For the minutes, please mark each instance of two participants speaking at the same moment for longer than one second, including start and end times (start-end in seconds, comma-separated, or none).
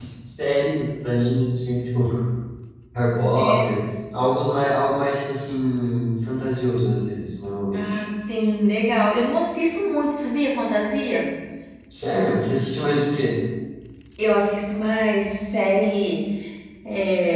none